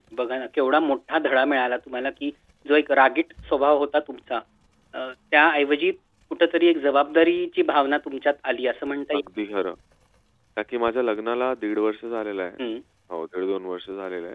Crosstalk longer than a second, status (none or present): none